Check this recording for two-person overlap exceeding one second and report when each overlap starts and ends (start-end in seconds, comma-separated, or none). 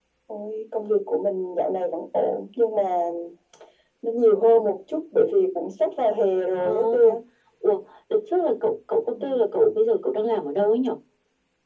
none